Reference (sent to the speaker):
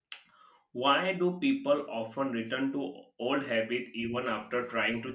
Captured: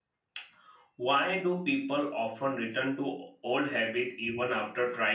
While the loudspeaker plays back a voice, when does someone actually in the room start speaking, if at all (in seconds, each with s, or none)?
none